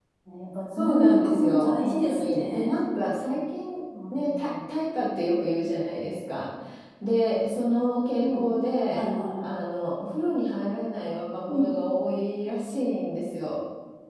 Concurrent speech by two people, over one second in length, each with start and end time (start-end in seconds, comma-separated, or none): 0.8-2.8